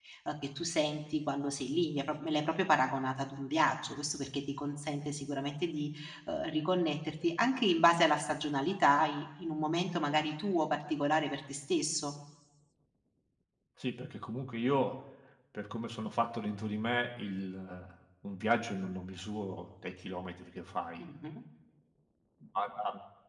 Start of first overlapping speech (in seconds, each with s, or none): none